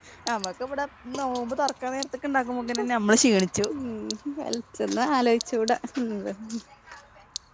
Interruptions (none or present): none